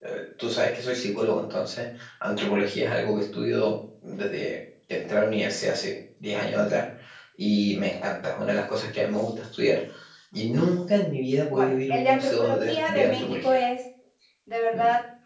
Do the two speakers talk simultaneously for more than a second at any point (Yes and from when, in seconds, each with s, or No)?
Yes, from 11.5 s